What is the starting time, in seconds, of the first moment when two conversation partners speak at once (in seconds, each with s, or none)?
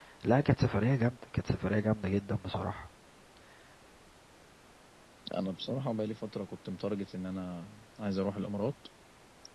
none